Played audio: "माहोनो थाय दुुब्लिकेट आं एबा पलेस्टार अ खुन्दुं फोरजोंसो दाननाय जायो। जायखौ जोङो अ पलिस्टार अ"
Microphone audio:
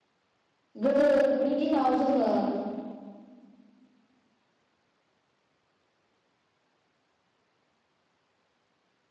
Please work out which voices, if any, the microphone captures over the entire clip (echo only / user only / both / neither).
user only